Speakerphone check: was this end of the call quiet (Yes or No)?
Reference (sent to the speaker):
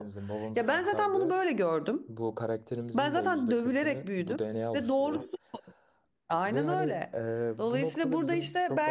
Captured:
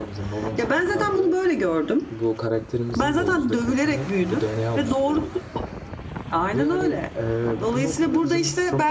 Yes